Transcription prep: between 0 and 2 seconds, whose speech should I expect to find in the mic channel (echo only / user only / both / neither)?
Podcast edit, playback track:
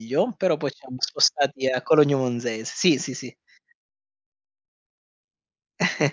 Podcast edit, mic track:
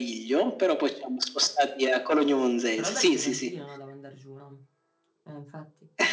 echo only